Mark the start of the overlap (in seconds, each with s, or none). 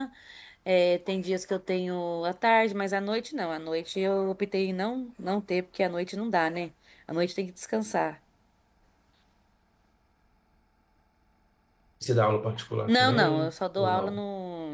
12.9 s